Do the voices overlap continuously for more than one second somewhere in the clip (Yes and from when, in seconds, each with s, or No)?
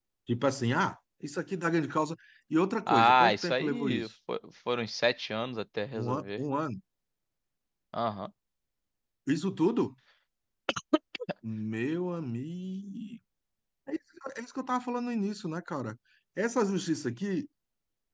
Yes, from 2.9 s